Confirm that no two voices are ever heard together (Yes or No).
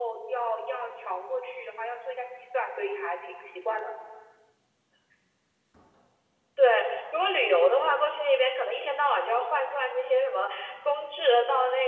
Yes